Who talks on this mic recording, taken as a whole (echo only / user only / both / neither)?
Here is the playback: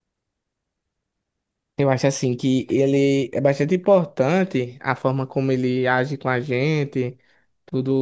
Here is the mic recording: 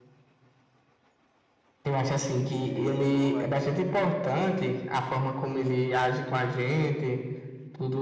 both